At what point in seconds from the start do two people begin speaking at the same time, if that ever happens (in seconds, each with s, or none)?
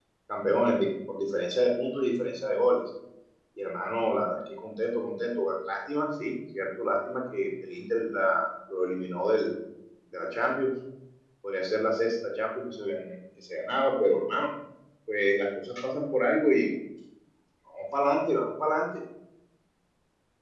none